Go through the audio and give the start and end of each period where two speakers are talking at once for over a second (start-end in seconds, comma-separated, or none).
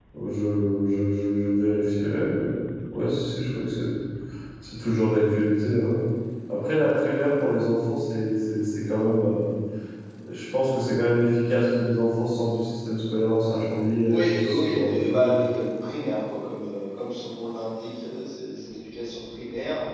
14.1-15.3